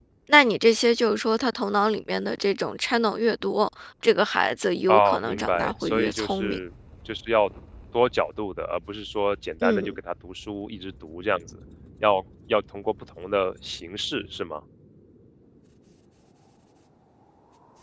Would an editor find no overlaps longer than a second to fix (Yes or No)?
No